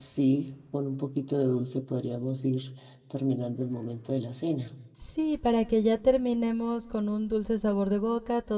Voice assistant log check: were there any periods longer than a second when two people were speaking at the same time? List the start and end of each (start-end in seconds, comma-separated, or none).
none